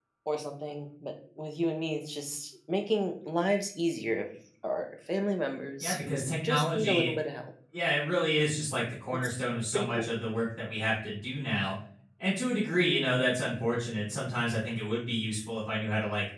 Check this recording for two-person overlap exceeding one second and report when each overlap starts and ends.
5.8-7.1

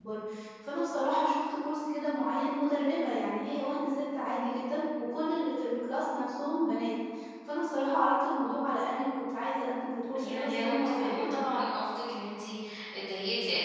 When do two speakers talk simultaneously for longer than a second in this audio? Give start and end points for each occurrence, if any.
10.2-11.4

